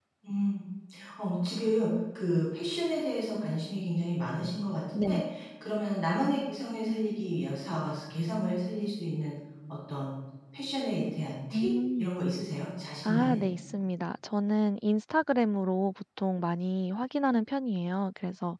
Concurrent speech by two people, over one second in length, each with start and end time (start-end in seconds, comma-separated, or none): none